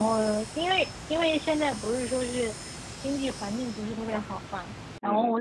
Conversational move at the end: listening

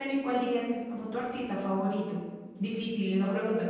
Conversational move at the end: taking over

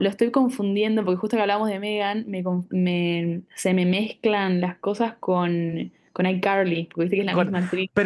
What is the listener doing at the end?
taking over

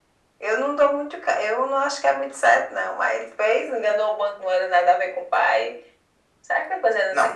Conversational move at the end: taking over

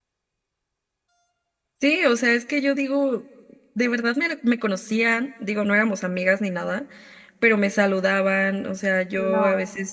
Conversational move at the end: listening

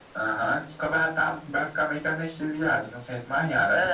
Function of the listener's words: taking over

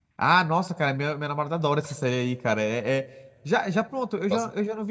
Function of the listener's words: listening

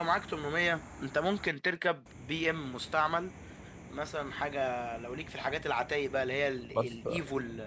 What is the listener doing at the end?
listening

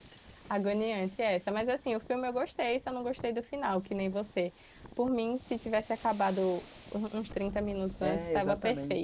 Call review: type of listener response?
taking over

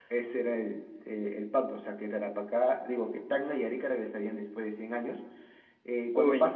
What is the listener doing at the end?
listening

